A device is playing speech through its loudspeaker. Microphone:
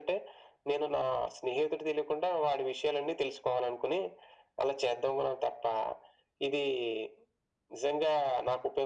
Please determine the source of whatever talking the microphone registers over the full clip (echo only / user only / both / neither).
echo only